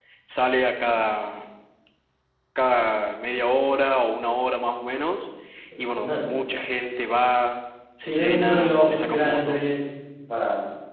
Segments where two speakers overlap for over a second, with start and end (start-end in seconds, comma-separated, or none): 8.0-9.6